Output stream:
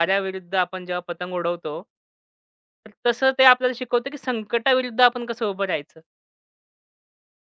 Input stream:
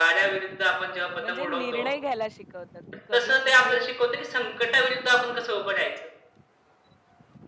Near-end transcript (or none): बरोबर. म्हणजे निर्णय घ्यायला शिकवतं, की कधी कुठे